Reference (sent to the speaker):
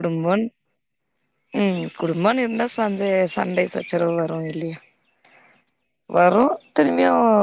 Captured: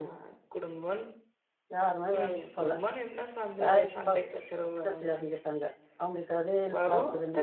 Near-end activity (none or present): present